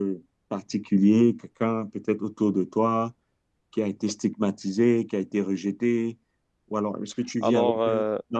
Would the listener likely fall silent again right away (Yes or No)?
Yes